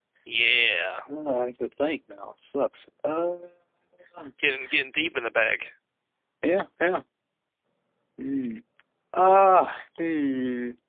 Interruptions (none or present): none